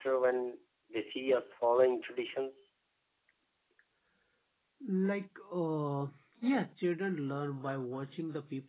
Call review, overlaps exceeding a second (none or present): none